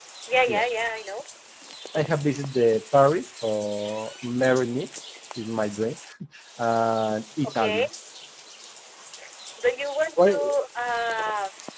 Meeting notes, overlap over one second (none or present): none